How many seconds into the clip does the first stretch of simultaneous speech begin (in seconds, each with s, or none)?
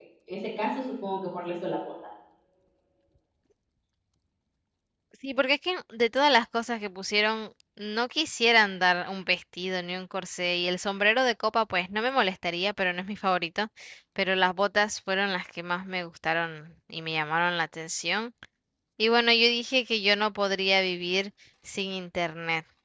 none